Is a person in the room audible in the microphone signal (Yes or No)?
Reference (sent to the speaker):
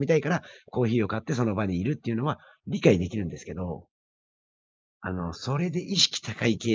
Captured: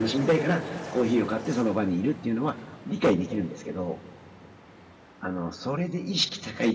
No